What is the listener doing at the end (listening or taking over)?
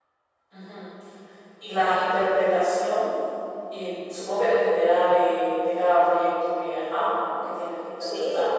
taking over